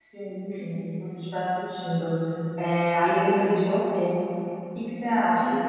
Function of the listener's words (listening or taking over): listening